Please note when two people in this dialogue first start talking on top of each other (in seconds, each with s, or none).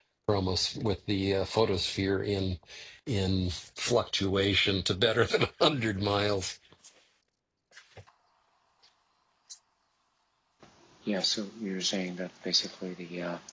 none